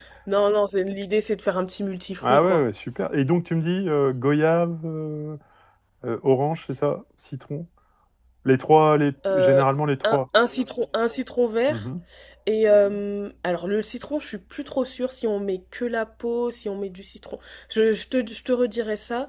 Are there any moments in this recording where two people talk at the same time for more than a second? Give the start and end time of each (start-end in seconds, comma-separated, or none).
none